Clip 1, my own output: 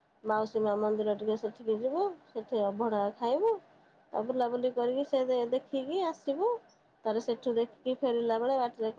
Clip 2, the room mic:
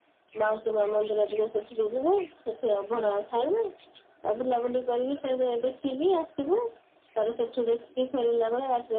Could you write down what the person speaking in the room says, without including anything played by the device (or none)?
none